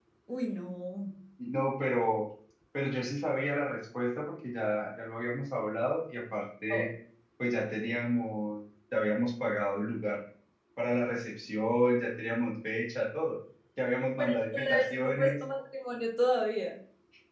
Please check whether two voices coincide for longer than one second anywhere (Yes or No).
Yes